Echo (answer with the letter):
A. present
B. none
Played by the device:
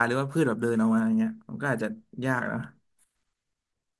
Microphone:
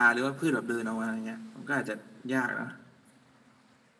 A